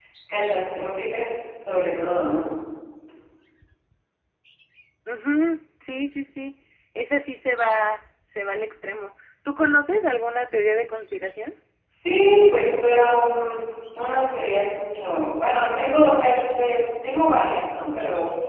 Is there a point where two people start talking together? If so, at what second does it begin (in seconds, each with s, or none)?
none